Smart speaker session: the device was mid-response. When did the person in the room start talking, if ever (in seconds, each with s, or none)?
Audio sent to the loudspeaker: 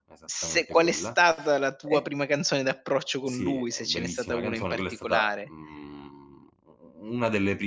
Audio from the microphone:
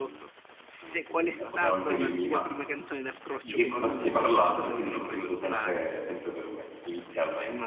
1.3 s